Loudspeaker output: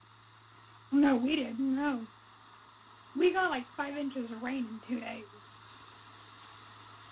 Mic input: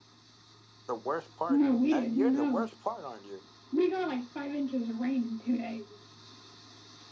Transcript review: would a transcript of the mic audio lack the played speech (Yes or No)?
No